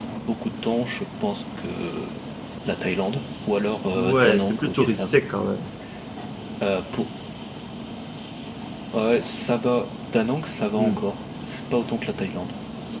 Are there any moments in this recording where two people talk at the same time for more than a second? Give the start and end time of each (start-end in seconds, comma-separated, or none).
4.0-5.2